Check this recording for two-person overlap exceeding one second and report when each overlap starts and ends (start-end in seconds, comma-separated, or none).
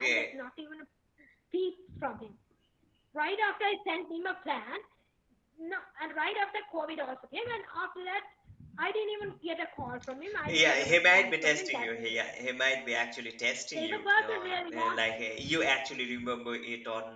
10.4-12.2, 13.7-15.0